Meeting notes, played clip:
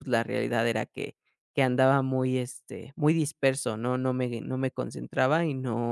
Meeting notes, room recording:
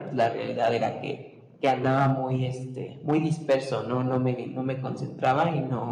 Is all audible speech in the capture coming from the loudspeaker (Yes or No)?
Yes